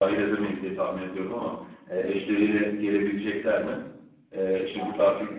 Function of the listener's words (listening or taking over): listening